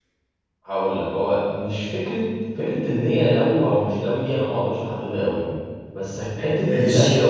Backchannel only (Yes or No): Yes